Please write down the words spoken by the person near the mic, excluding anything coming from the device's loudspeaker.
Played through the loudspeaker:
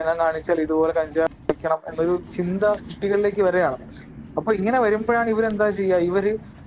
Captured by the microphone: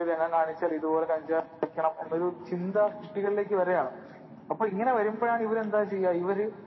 none

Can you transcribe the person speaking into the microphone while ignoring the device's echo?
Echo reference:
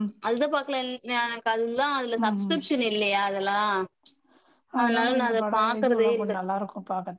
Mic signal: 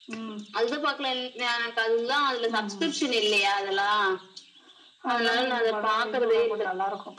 none

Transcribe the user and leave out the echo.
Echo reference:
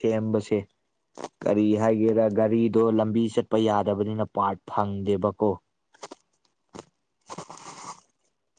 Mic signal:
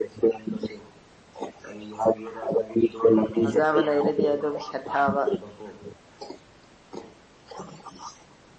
ꯐꯖꯥꯕ ꯂꯩꯔꯗꯤ ꯑꯗꯨꯝ ꯁꯦꯠꯊꯕ

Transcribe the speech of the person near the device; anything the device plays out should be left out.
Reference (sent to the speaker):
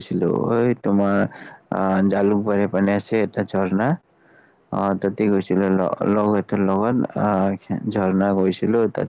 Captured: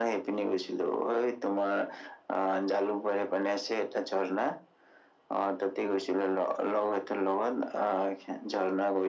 none

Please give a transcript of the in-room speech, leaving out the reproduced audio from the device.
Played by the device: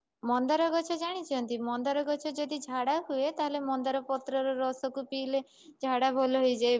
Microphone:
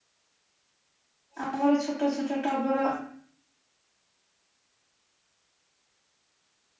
ଆମର ଛୋଟ ଛୋଟ ଟଗର

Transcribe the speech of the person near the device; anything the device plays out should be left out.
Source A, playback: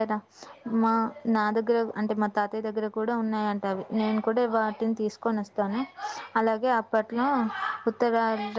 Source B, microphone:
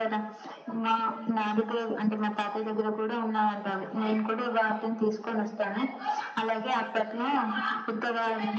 none

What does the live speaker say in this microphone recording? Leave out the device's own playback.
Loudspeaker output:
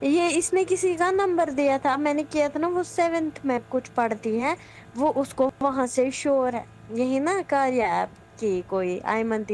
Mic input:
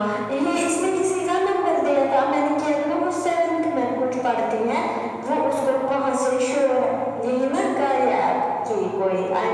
none

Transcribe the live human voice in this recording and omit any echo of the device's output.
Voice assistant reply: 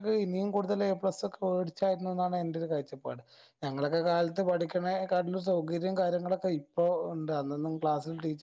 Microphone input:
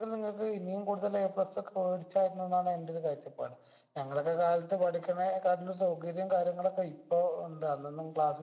none

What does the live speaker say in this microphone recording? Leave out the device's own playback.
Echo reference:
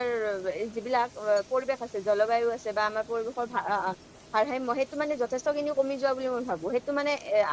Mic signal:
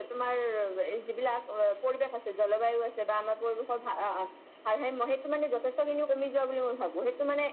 none

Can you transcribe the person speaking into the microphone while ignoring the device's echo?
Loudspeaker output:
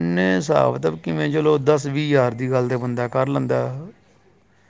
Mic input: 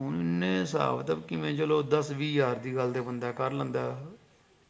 none

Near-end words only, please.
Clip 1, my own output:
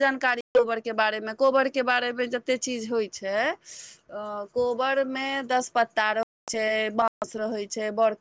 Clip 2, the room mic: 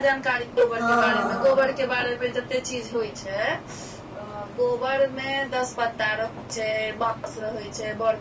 हँ हँ

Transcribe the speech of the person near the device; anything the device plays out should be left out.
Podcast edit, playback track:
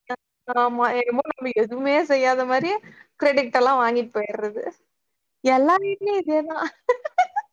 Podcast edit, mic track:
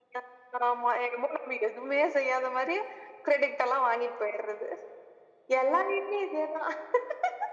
none

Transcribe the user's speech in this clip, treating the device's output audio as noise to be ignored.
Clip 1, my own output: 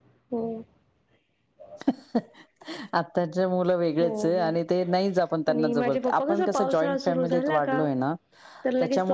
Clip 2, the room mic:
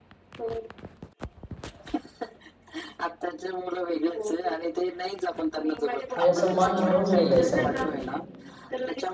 म्हणजे असं मन भरून गेले स

